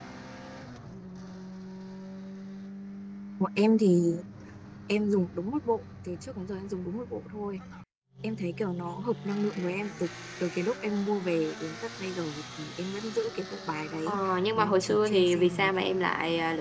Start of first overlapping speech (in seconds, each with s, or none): 14.1 s